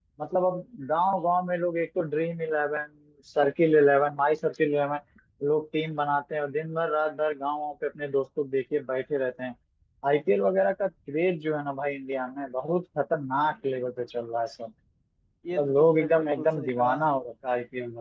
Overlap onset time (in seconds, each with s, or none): 15.6 s